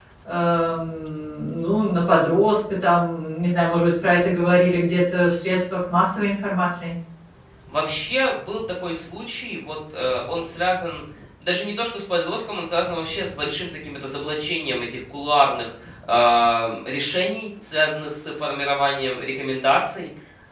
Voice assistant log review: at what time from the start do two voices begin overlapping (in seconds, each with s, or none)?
none